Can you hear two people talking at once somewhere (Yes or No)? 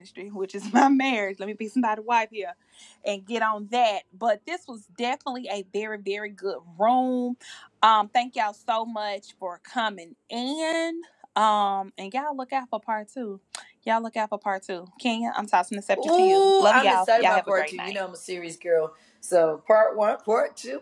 Yes